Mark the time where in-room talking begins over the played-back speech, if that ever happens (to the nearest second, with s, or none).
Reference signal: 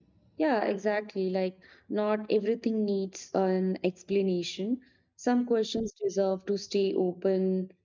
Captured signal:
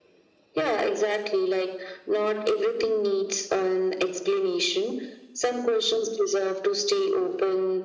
none